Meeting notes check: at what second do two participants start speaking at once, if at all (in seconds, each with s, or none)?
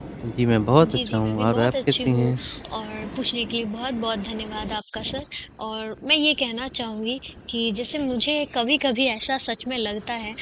0.8 s